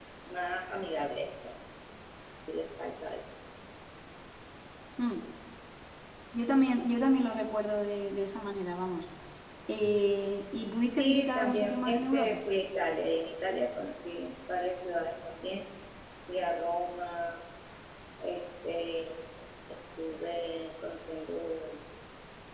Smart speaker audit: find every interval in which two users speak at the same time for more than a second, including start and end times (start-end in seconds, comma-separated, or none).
10.9-12.4